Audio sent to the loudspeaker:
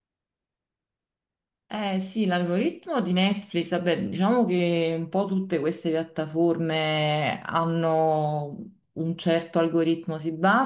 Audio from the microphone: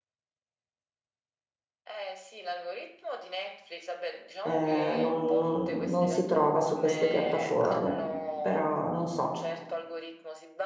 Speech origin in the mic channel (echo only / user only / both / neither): both